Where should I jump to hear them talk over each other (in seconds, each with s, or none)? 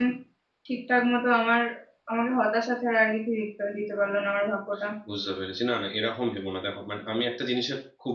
none